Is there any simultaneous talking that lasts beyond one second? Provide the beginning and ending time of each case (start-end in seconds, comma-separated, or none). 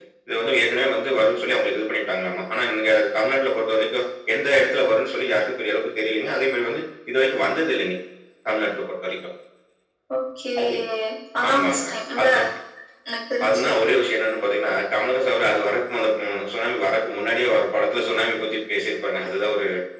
none